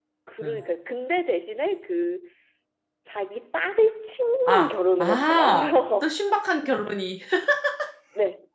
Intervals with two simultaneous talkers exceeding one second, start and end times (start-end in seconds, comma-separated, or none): 4.5-6.1